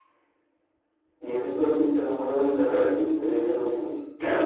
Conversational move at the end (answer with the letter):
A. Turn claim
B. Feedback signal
A